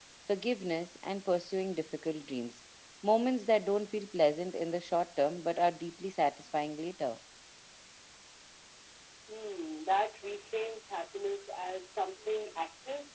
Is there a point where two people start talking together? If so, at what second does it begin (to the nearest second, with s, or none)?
none